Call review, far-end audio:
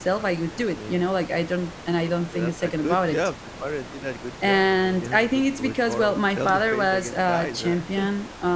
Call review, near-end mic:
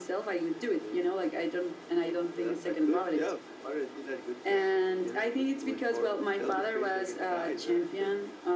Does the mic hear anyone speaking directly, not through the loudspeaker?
No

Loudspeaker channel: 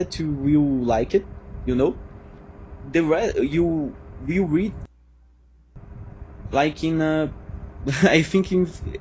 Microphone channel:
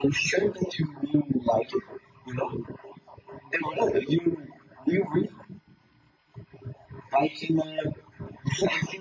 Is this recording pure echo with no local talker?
Yes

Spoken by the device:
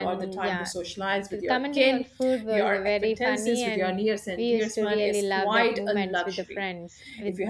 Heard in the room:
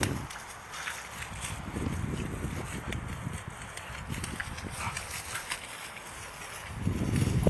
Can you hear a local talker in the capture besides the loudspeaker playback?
No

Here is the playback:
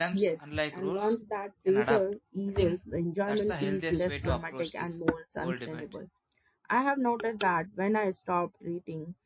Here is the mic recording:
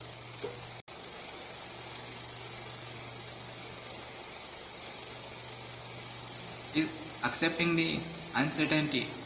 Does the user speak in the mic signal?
Yes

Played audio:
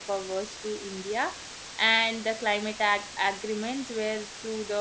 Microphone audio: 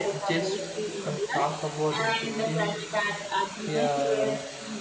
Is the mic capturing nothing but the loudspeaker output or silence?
No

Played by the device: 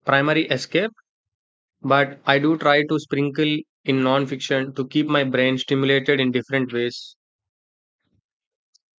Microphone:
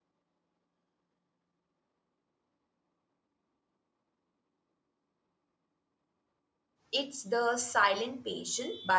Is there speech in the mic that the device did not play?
Yes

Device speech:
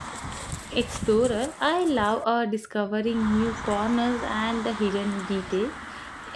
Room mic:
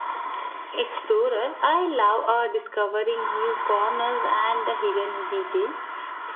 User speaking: No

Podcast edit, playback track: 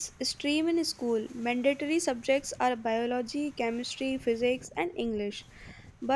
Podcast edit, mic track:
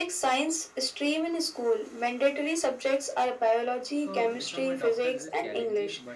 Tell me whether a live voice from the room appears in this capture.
Yes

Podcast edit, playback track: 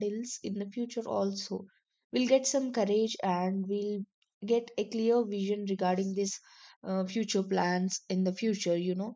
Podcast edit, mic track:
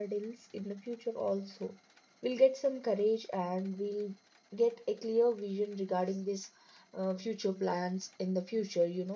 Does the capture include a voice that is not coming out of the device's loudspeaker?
No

